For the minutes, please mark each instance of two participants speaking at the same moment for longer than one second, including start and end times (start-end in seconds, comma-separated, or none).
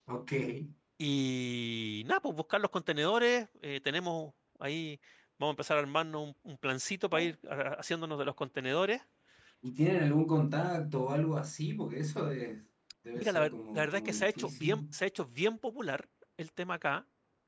13.2-14.8